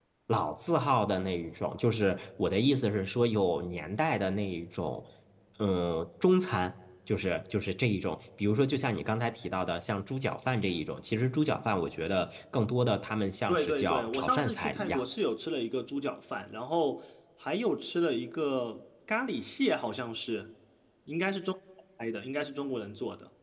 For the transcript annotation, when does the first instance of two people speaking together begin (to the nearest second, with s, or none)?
13 s